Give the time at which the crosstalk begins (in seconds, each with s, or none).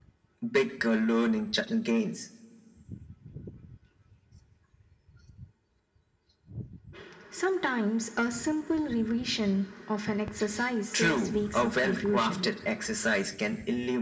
10.9 s